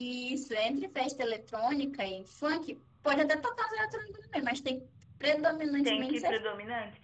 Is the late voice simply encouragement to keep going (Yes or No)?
No